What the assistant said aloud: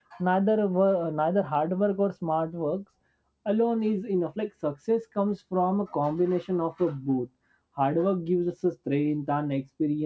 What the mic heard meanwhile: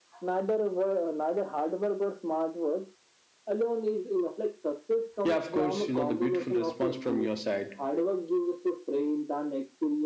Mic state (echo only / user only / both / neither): both